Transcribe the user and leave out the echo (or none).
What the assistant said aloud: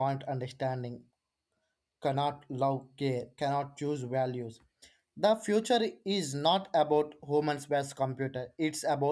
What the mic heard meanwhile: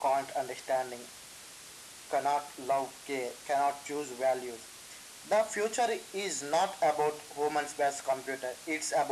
none